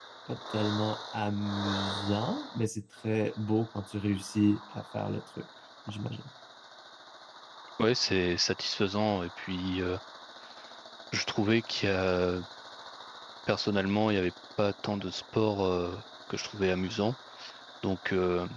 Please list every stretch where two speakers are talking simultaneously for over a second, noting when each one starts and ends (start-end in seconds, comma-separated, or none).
none